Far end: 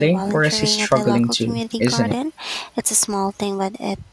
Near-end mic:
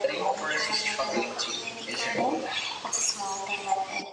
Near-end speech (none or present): none